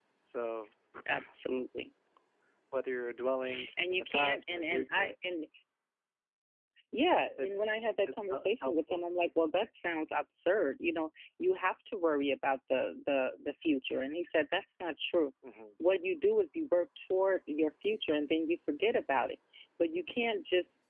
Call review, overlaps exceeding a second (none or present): present